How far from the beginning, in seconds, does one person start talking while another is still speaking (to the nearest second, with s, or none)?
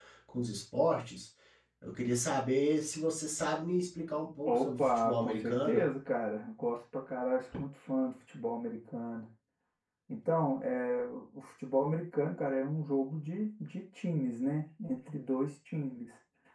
4 s